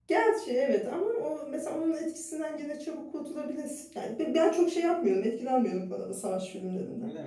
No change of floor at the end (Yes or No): No